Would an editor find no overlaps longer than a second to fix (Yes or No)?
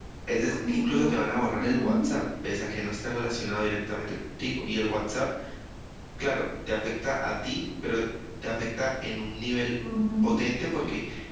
No